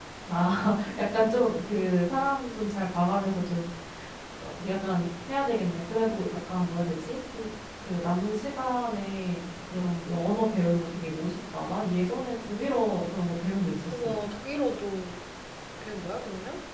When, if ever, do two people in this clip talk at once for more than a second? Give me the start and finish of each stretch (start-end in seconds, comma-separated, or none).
none